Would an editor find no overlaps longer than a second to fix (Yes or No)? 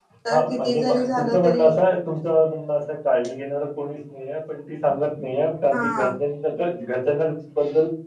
No